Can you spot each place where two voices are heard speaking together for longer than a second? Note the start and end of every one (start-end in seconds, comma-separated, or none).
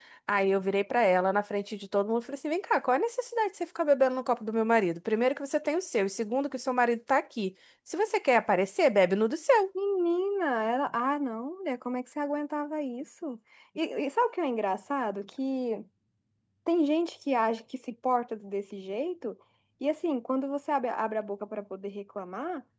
none